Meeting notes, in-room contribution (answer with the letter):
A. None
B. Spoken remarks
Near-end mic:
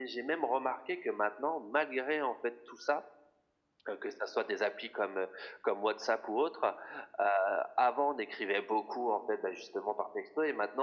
A